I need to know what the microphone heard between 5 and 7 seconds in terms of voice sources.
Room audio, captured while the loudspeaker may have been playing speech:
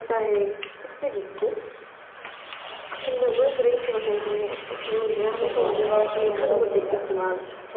both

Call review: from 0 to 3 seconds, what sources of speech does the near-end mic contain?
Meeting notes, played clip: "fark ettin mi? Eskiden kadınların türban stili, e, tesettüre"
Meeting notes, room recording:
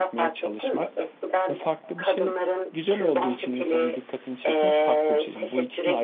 both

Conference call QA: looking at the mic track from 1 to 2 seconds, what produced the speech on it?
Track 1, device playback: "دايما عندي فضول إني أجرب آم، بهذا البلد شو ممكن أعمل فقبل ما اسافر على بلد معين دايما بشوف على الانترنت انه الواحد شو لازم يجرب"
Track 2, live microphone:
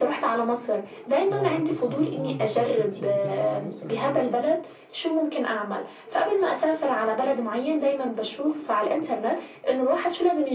both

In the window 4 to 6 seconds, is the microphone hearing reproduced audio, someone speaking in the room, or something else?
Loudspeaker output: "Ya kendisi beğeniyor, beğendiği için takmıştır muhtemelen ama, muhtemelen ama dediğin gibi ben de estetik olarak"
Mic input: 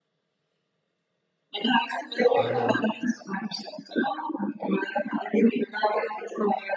echo only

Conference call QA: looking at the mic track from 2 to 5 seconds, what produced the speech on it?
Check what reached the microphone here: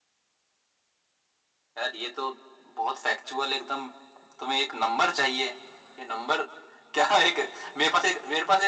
echo only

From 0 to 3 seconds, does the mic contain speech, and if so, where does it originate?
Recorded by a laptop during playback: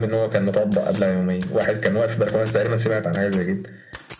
echo only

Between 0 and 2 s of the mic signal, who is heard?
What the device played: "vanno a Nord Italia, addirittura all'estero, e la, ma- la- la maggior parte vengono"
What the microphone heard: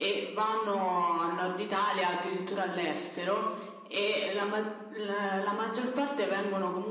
echo only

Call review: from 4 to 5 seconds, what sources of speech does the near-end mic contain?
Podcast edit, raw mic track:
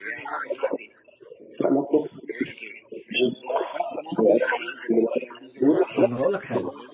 echo only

